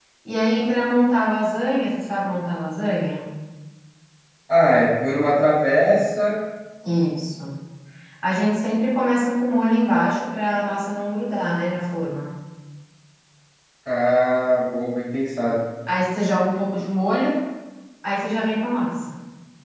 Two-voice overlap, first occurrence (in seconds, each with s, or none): none